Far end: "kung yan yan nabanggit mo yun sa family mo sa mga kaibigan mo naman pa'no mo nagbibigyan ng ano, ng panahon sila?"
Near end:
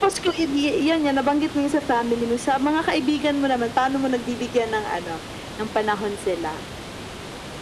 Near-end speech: none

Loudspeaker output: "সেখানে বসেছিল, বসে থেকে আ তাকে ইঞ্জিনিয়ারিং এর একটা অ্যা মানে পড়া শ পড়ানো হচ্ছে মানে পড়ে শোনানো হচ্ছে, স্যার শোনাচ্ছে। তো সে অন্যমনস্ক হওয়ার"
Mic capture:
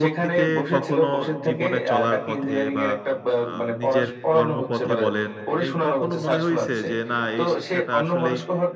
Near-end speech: present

